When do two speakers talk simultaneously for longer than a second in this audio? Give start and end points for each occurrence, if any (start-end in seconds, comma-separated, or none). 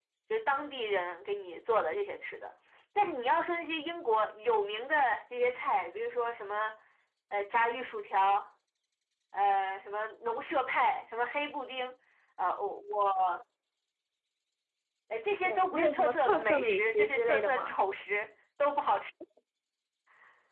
15.4-17.8